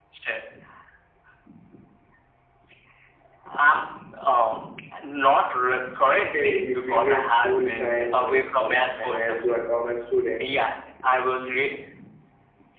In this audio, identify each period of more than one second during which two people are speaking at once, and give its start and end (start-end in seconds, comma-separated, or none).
6.2-9.6